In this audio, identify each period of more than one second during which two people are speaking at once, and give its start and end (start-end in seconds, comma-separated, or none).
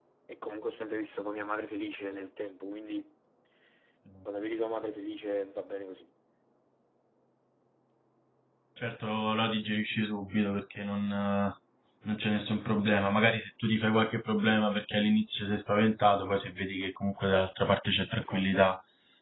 none